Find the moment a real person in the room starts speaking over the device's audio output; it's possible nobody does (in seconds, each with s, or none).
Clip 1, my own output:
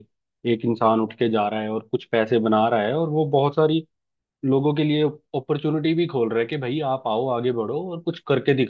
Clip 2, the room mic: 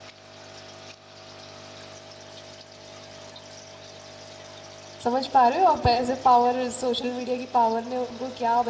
5.0 s